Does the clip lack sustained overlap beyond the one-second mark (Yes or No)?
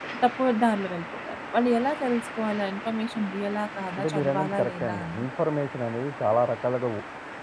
No